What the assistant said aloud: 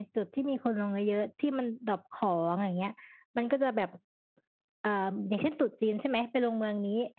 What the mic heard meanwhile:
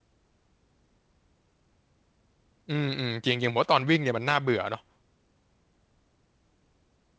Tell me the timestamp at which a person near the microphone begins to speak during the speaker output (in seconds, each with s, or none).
2.7 s